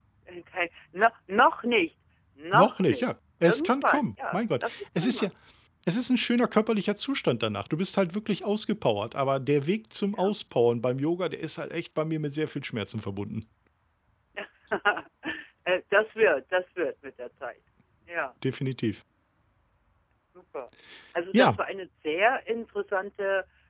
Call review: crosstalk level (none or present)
present